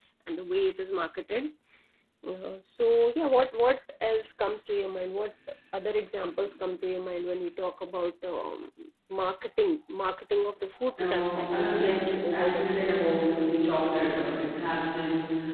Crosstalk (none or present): present